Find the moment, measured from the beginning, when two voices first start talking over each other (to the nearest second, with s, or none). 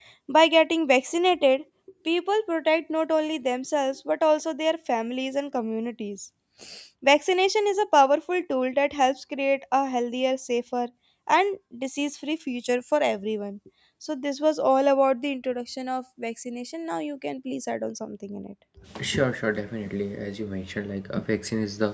none